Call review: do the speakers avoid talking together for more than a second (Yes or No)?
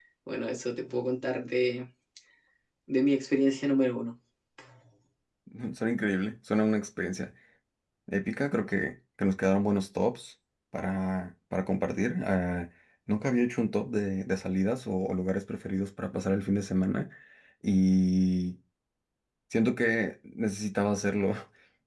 Yes